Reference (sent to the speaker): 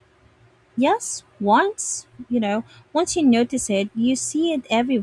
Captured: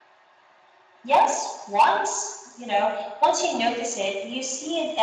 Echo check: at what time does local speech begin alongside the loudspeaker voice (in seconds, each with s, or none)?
none